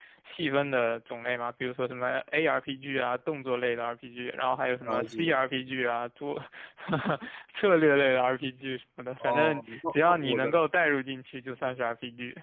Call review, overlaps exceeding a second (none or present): present